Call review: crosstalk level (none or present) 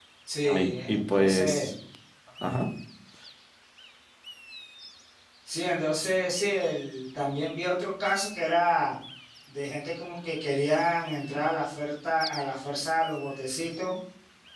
present